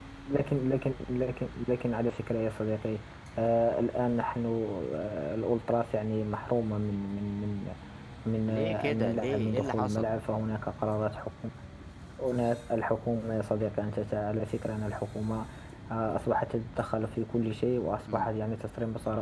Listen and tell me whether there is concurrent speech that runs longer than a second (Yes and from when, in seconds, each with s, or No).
Yes, from 8.5 s